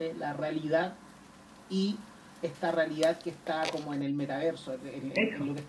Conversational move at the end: listening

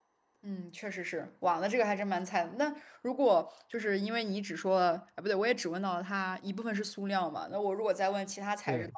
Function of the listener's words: listening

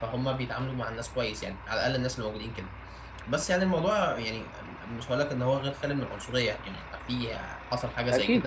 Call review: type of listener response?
taking over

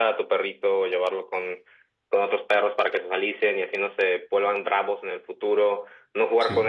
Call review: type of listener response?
listening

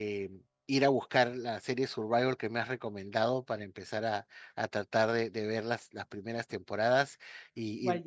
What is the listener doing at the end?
listening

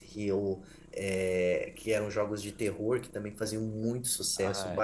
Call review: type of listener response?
listening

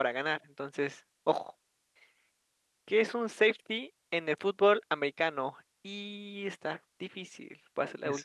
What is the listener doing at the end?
taking over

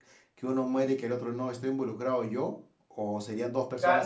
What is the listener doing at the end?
taking over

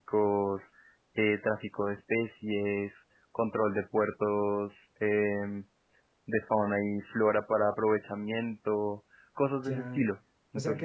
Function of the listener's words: taking over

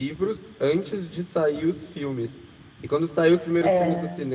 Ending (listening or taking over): listening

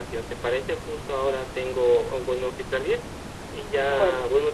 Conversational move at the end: listening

